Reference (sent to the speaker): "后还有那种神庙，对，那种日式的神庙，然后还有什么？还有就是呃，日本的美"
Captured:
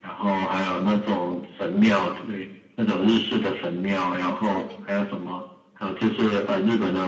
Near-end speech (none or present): present